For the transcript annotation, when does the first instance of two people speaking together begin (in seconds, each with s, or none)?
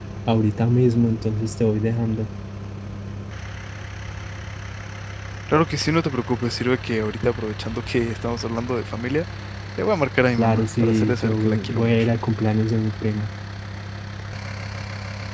10.4 s